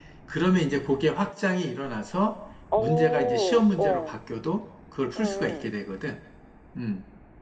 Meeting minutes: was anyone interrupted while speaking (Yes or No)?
Yes